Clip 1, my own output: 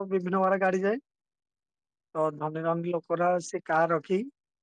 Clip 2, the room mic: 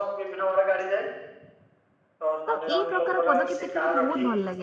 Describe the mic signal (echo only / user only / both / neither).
both